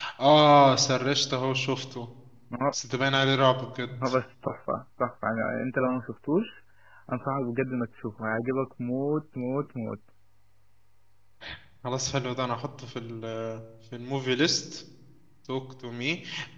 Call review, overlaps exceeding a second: none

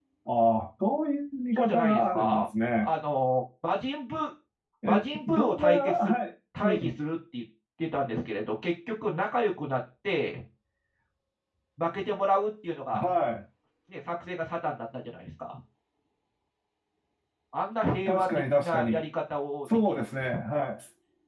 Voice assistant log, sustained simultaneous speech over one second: present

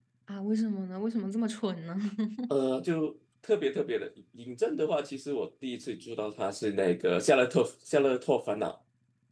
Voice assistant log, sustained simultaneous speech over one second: none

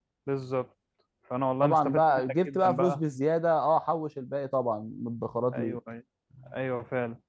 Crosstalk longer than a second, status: present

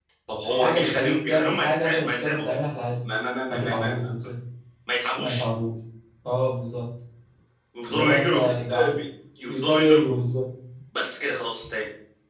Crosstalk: present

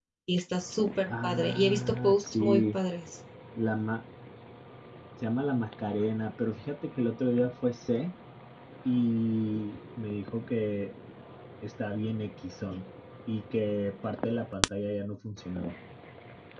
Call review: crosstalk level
present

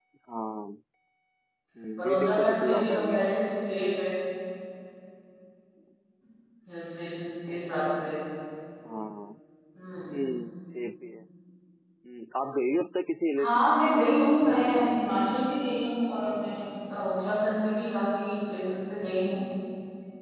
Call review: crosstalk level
present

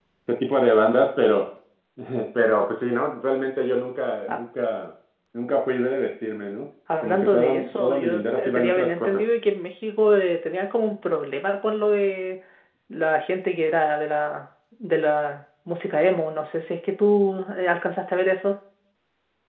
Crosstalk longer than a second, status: present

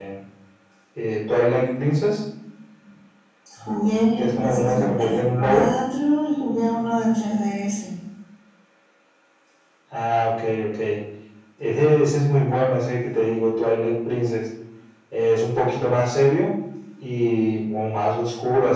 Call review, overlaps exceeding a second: present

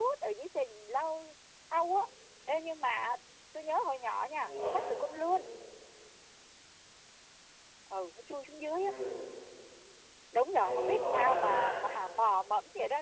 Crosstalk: present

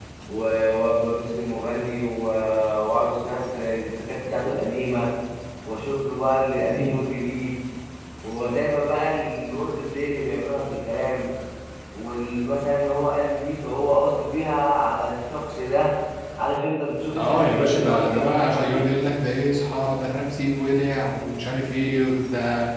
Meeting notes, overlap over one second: present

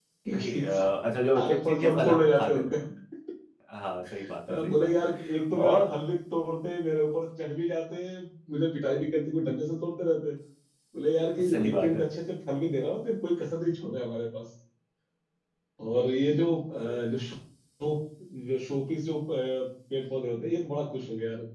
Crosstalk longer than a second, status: present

